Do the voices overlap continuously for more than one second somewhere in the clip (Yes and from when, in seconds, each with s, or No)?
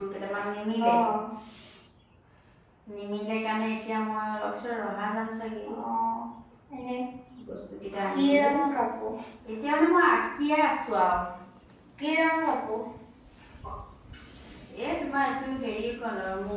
No